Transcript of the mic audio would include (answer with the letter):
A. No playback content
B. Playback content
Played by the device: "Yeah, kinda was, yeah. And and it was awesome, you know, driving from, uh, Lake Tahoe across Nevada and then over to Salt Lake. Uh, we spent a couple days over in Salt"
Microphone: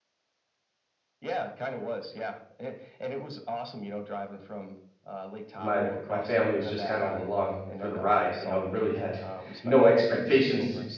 B